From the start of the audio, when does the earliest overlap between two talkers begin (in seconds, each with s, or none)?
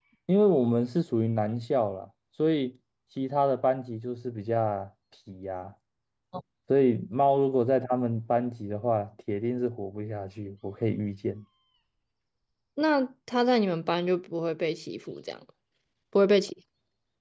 none